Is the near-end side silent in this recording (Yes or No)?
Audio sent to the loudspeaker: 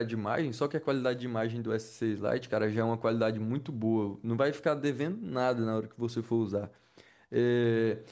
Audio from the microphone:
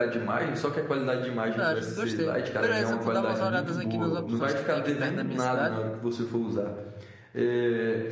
No